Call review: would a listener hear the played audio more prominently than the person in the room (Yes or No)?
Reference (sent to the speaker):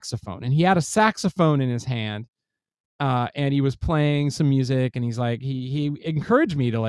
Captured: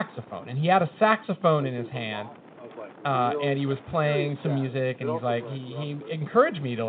Yes